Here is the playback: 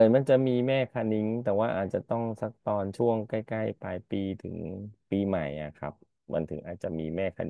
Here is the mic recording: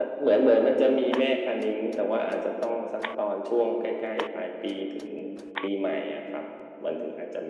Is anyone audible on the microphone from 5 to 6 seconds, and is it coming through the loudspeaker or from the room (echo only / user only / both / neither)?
echo only